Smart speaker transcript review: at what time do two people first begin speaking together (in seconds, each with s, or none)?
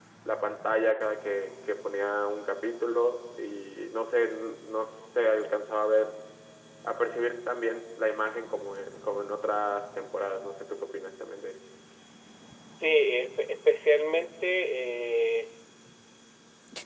none